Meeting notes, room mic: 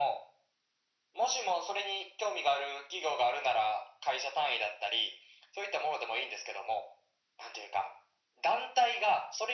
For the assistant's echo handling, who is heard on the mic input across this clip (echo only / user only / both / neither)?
echo only